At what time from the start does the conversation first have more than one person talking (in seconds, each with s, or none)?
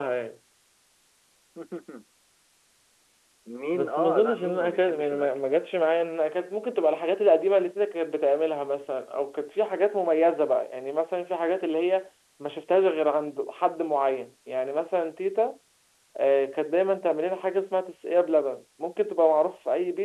3.7 s